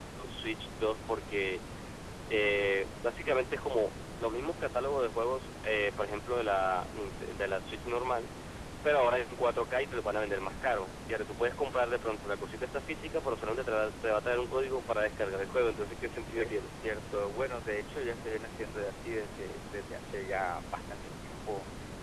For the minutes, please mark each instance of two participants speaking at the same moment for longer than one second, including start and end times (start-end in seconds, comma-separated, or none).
none